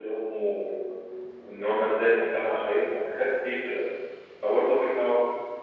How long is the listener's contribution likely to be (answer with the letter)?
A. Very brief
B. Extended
A